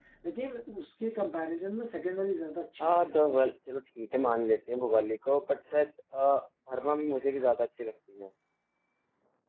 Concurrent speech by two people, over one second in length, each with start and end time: none

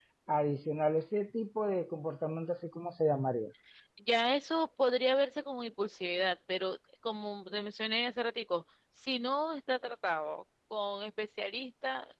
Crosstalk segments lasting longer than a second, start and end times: none

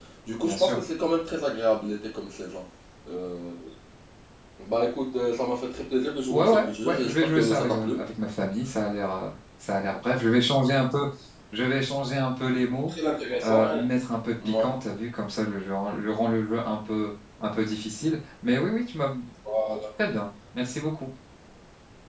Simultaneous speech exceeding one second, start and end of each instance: 6.3-8.0

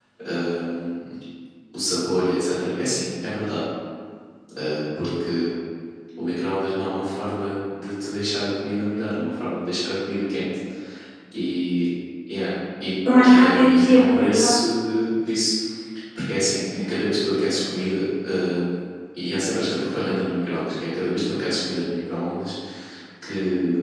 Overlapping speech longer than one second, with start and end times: 13.2-14.5

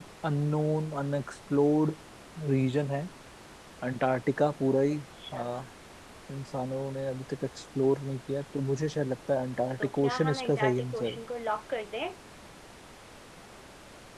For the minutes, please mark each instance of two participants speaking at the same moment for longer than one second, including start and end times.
9.8-11.2

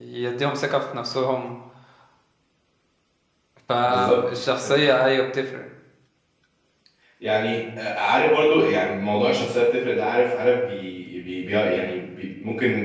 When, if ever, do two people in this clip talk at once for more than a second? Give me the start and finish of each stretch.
none

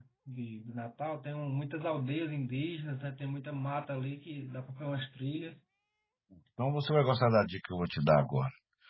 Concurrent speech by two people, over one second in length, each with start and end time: none

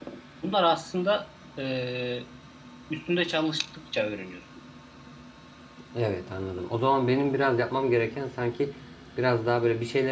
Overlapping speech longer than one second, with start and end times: none

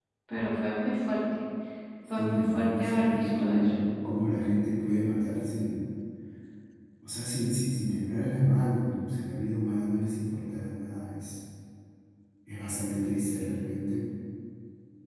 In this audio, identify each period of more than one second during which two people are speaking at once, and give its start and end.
2.2-3.7

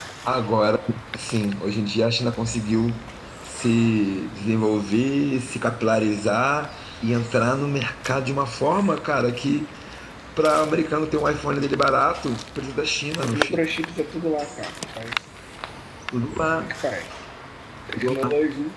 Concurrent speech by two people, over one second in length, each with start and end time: none

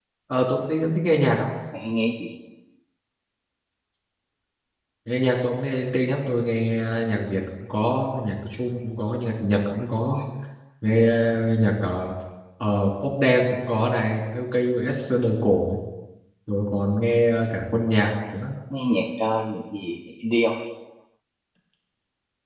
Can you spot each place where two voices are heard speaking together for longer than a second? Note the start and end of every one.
none

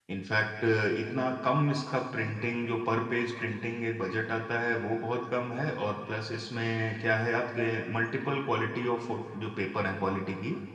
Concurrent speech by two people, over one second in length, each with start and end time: none

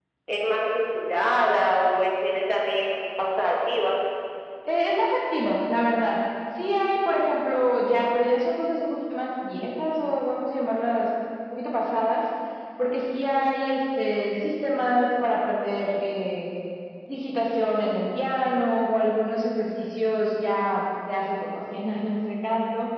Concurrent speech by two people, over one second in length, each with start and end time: none

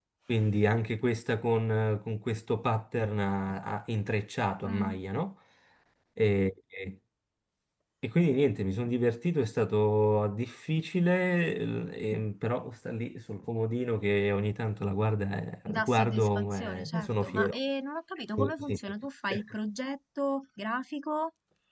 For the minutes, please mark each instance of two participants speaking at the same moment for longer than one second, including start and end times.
15.7-17.6

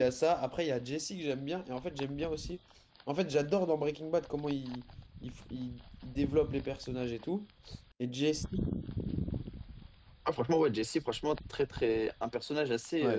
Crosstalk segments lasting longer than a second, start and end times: none

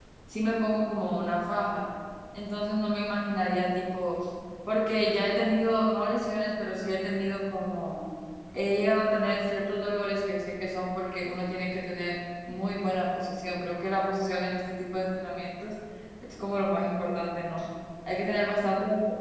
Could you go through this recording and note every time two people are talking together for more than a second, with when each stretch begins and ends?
none

